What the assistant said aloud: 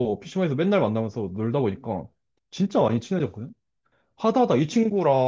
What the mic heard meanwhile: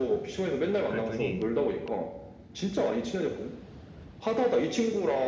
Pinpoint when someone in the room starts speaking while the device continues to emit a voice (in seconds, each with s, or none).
0.8 s